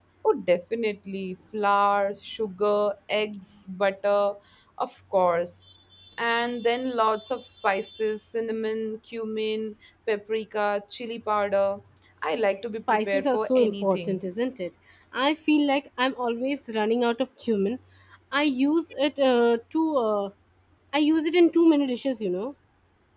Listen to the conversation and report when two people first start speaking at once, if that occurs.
12.9 s

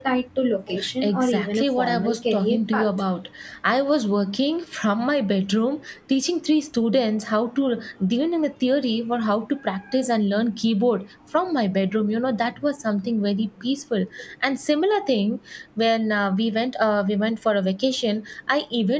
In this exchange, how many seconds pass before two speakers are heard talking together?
1.0 s

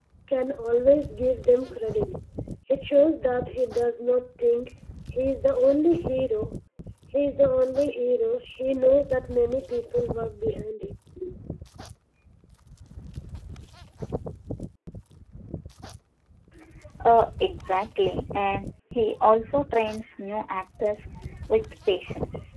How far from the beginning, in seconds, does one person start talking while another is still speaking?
none

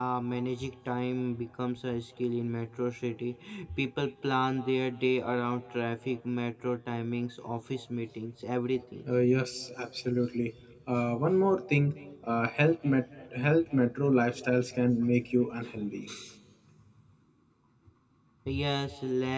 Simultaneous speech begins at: none

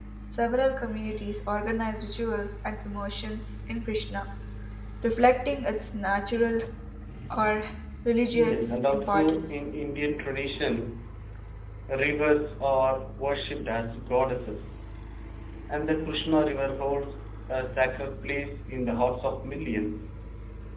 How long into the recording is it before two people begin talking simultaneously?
8.4 s

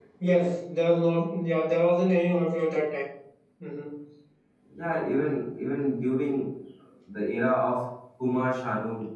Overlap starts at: none

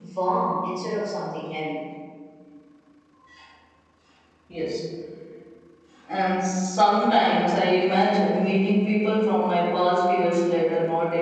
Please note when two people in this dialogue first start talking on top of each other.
none

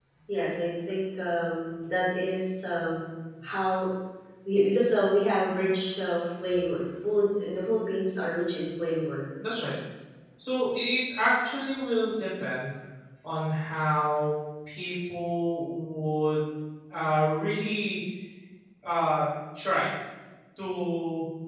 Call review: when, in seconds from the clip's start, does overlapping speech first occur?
none

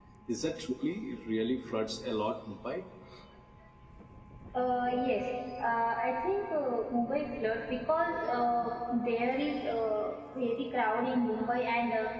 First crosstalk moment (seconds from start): none

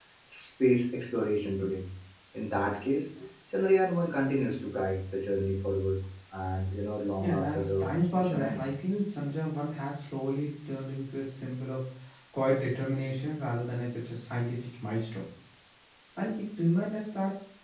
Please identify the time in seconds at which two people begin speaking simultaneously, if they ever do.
7.2 s

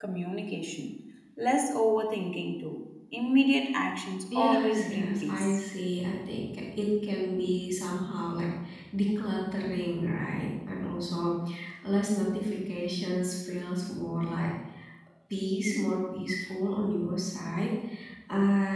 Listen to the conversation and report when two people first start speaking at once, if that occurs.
4.3 s

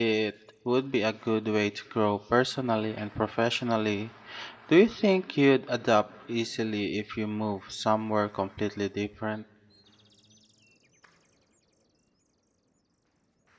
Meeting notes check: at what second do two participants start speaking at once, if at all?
none

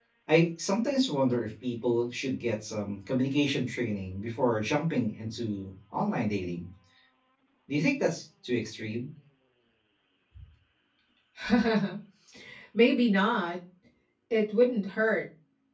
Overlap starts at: none

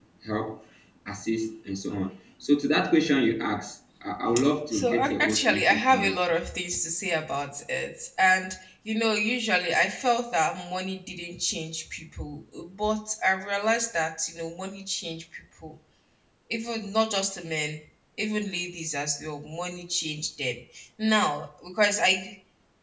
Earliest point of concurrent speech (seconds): 4.7 s

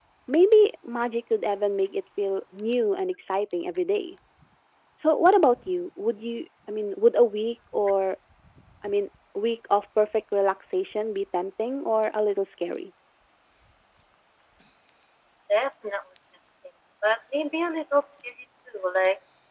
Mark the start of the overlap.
none

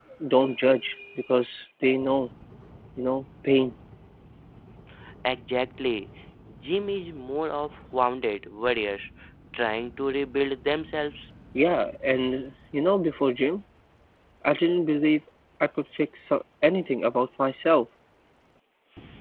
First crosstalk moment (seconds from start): none

